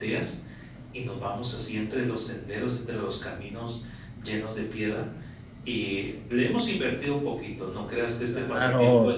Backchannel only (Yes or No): No